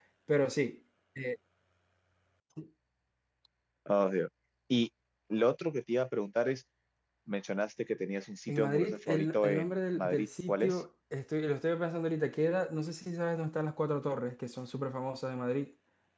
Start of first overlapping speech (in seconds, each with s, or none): 8.5 s